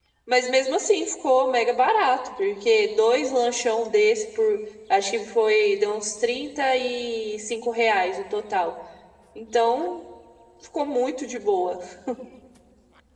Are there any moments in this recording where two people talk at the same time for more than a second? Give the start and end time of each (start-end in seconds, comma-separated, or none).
none